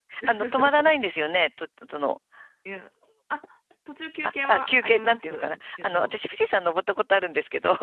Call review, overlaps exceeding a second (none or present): present